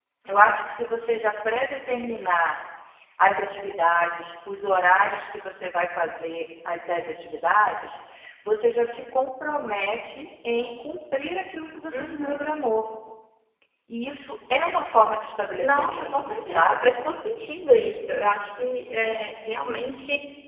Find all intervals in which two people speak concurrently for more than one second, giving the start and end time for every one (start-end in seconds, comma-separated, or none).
15.6-16.9